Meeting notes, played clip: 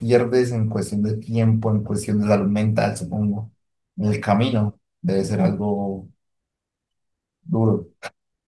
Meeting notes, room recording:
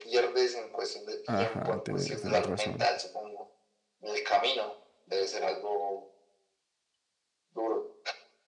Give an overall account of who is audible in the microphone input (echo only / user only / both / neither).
both